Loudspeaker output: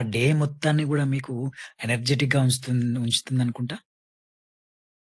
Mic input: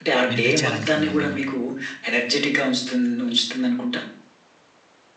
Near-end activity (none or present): present